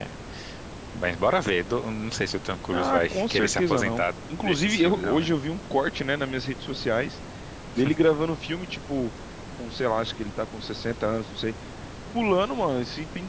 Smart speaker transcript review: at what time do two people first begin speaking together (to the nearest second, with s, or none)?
3 s